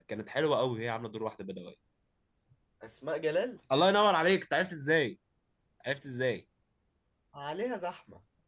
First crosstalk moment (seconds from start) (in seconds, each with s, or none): none